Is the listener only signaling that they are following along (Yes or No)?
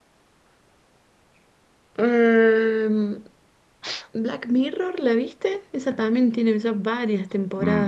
No